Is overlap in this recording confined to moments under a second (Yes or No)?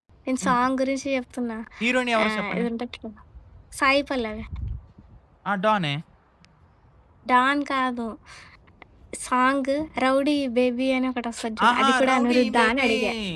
No